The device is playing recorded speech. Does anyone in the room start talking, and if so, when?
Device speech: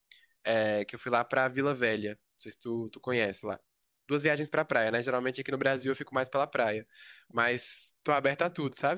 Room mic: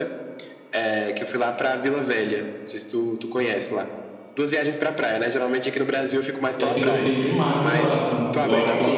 6.6 s

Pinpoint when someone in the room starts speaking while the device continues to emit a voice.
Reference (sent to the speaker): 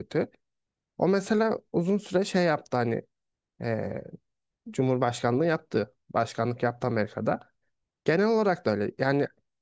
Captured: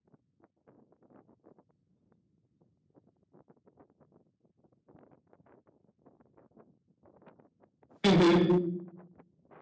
8.0 s

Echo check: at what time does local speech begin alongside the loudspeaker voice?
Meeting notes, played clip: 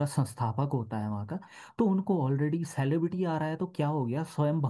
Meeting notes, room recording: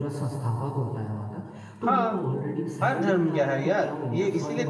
1.8 s

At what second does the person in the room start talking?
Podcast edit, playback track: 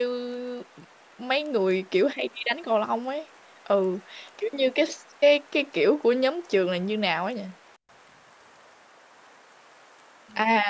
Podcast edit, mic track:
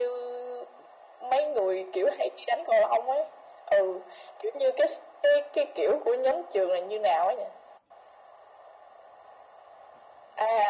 none

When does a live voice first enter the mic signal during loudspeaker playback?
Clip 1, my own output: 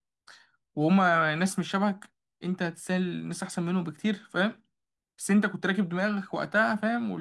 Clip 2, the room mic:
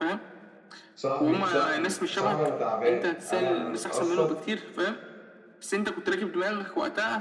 0.9 s

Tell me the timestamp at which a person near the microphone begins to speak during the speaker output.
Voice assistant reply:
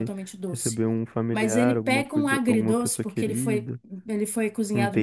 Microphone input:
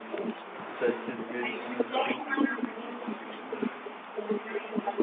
0.6 s

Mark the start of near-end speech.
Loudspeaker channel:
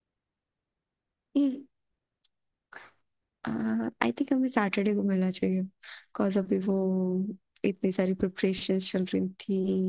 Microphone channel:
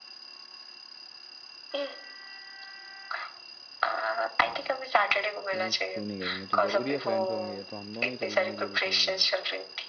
5.5 s

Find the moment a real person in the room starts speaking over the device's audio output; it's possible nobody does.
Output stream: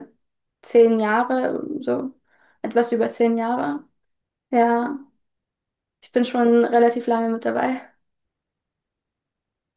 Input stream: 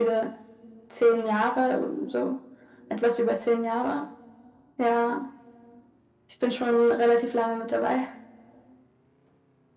none

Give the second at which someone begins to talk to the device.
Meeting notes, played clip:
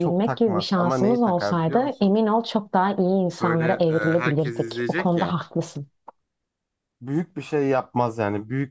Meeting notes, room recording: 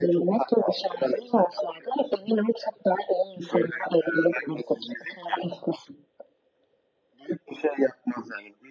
none

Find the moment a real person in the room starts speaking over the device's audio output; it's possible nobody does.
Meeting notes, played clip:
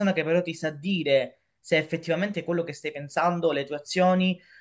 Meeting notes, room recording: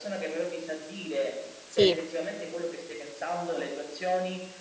1.6 s

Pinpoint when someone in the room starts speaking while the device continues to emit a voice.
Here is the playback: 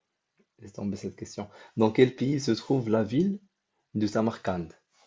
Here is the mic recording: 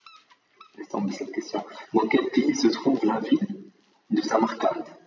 none

